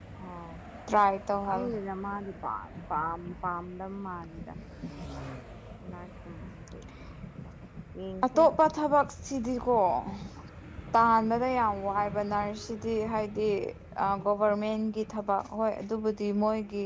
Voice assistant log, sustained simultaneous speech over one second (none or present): none